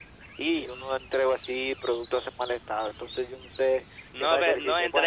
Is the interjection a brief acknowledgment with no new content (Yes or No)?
No